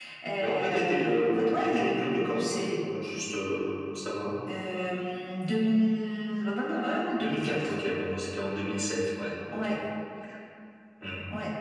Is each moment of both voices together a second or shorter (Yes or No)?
No